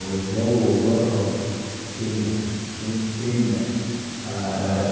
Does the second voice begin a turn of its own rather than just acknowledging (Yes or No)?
No